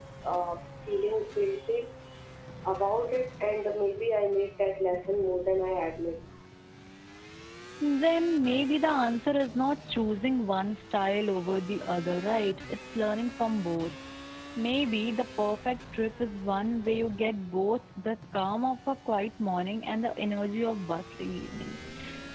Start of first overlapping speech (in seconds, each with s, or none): none